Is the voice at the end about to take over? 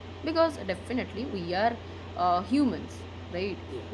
No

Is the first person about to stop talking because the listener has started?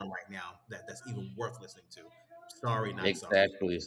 Yes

